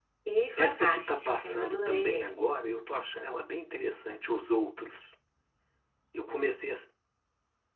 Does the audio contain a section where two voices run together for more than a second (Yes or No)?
Yes